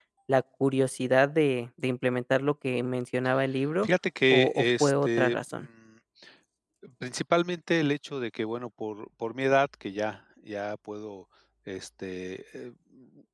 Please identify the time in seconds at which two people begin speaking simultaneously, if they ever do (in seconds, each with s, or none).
4.3 s